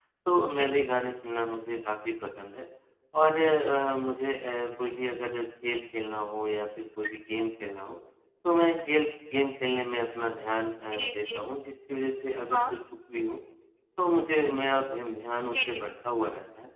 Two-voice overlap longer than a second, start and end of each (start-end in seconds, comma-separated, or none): none